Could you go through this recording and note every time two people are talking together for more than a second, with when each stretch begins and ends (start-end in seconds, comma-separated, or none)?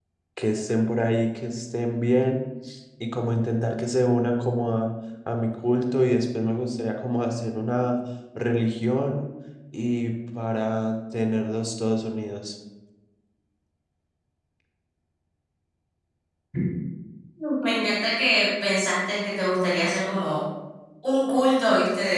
none